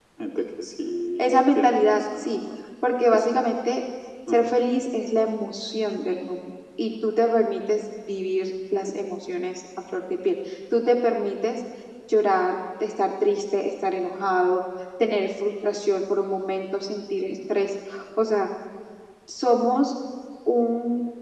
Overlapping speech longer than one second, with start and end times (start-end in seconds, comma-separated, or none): 1.2-2.4